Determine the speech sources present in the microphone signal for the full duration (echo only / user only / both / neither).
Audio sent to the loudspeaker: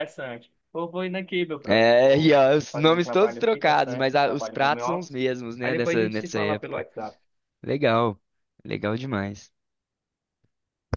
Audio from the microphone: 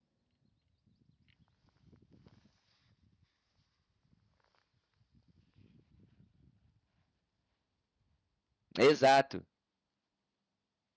user only